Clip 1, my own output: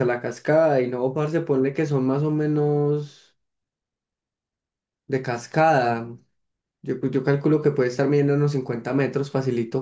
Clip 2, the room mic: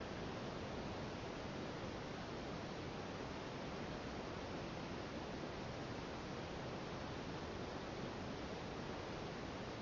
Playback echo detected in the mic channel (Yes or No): No